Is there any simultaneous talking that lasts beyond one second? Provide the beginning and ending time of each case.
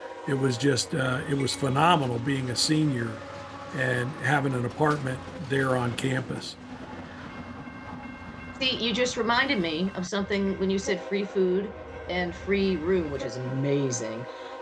none

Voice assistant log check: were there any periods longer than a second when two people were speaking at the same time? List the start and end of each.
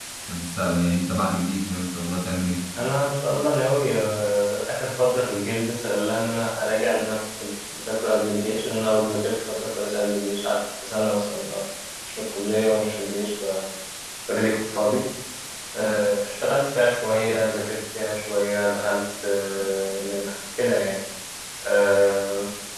none

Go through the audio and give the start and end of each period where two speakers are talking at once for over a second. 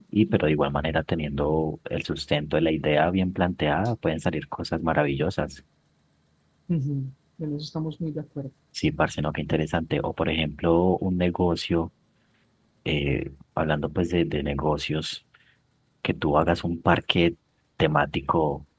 none

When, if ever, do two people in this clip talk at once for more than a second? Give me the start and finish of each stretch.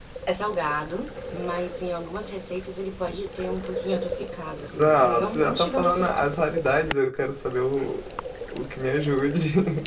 4.7-6.2

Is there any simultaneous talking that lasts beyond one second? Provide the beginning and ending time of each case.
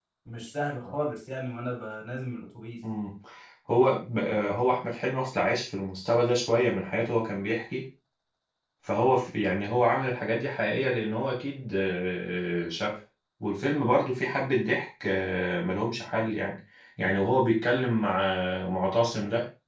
none

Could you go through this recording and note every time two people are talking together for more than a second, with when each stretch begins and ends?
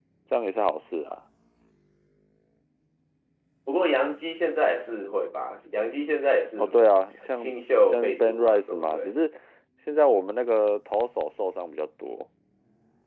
7.3-9.1

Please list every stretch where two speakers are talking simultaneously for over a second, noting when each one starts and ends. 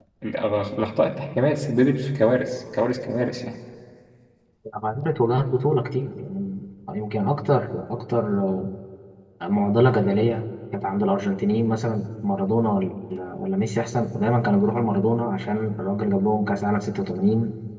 none

